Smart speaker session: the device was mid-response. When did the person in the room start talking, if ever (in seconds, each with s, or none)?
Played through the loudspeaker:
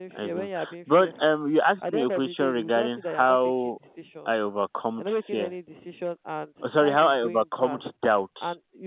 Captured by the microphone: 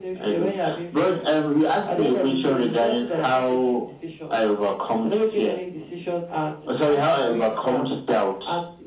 none